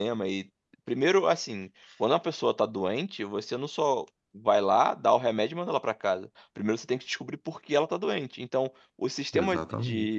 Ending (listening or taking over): listening